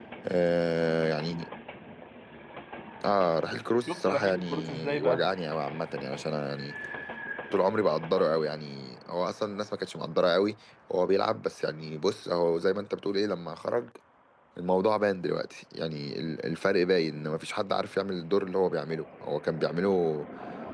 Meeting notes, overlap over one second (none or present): present